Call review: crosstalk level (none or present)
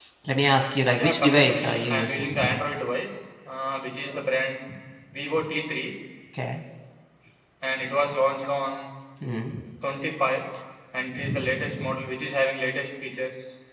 present